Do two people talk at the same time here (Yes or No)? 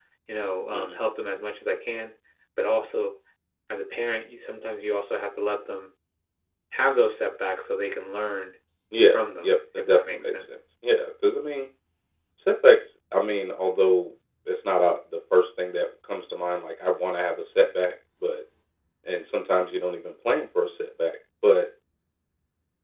Yes